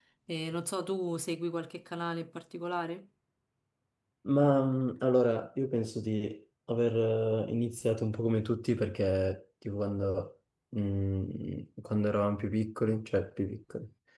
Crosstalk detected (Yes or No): No